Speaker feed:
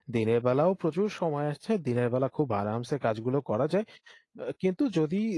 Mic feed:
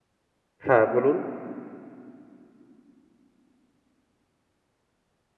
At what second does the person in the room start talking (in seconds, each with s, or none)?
0.7 s